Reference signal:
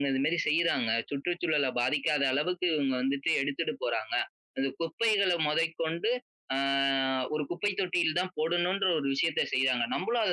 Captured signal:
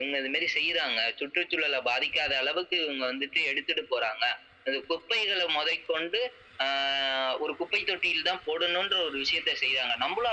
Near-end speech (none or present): none